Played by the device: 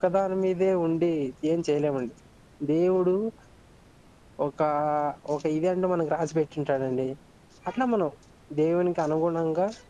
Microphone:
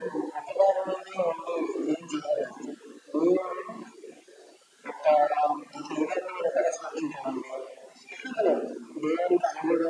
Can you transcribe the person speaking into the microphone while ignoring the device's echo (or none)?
none